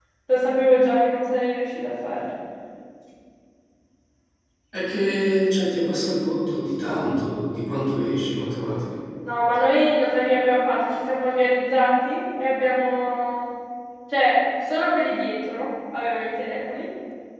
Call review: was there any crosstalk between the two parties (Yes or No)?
No